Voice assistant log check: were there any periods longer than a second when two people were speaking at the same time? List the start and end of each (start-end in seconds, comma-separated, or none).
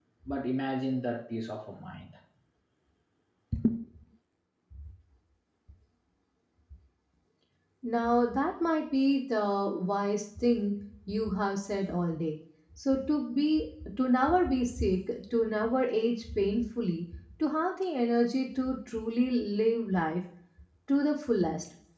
none